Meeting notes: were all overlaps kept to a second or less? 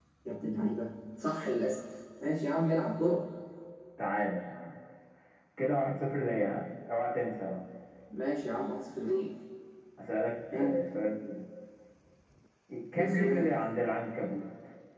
Yes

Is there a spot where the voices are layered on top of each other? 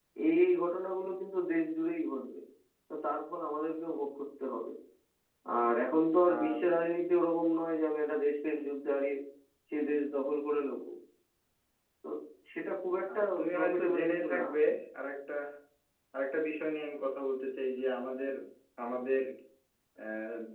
Yes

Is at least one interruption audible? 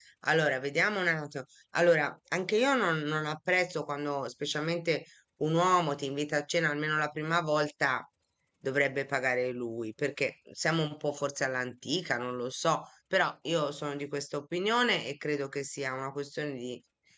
No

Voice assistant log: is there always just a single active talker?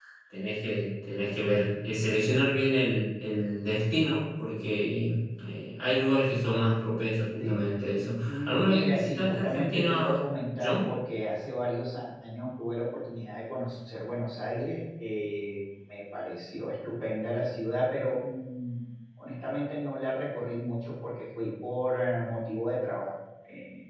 No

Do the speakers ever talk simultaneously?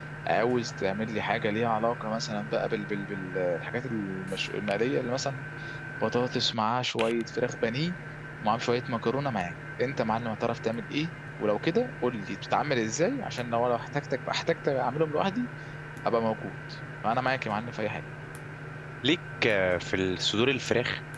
No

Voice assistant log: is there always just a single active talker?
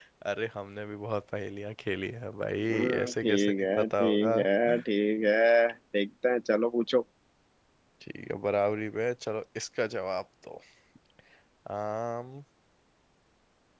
No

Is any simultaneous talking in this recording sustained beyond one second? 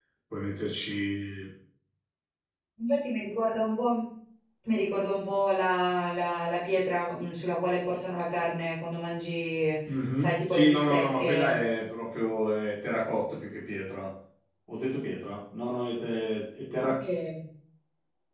Yes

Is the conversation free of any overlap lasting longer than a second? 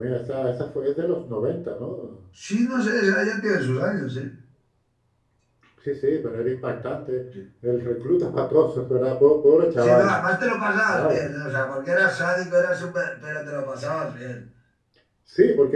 Yes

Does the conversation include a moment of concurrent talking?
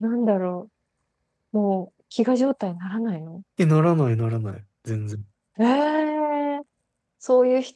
No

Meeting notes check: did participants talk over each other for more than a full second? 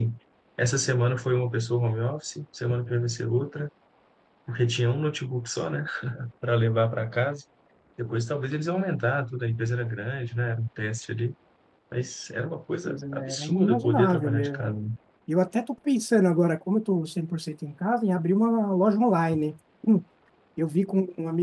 Yes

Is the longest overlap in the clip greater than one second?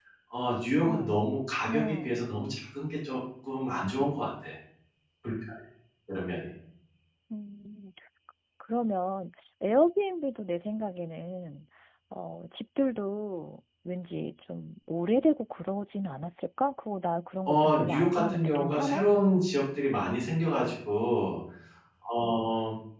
Yes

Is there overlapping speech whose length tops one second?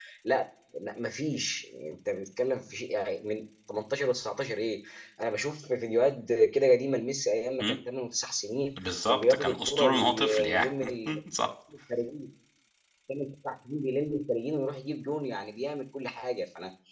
Yes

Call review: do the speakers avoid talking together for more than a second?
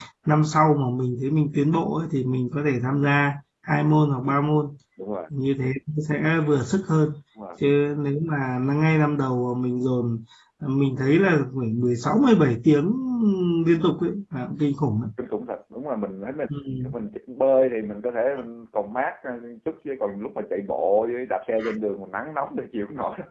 Yes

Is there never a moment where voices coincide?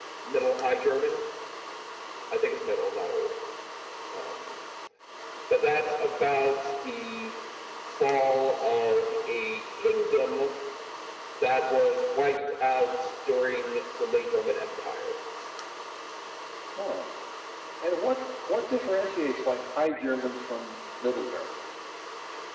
Yes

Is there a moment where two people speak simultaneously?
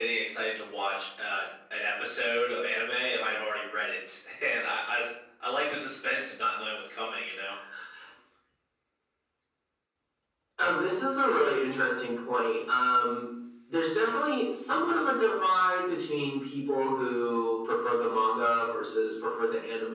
No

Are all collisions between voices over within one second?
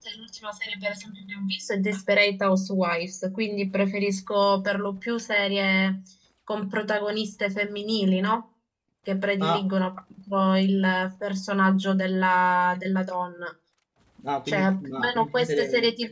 No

